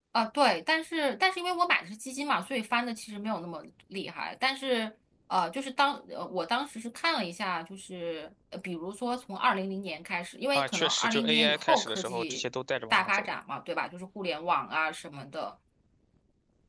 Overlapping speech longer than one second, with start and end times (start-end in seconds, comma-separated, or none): 10.5-12.4